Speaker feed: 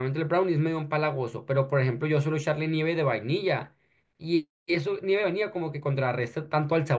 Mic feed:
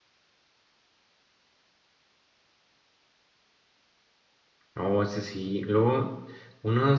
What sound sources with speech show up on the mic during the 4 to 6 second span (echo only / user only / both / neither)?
user only